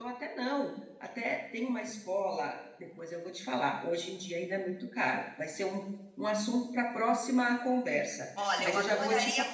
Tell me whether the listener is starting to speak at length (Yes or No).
Yes